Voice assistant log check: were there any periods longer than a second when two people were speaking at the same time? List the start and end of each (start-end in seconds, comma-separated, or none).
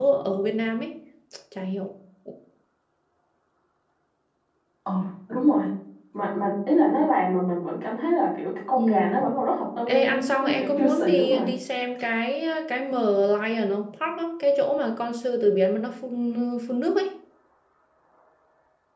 9.9-11.5